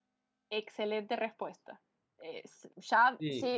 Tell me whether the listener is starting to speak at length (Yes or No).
No